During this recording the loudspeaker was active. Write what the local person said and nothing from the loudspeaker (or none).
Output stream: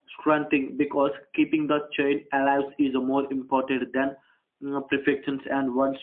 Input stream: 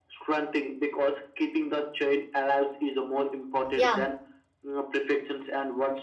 Yeah.